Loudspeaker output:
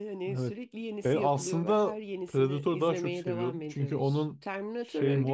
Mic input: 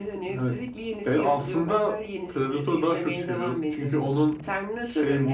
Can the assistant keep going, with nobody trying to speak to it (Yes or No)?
Yes